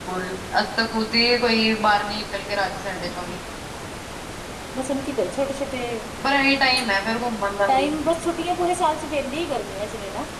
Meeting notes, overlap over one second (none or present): none